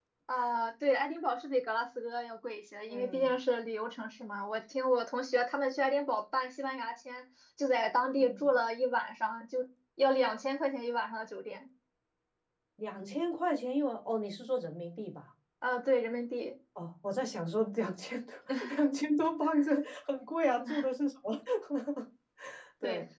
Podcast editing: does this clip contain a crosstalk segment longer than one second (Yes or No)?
No